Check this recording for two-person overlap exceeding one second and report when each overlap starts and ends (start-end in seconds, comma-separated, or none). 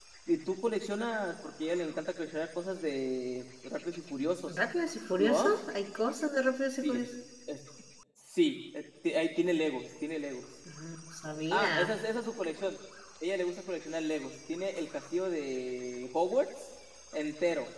none